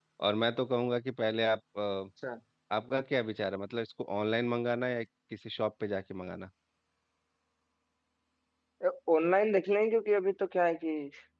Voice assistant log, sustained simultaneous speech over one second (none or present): none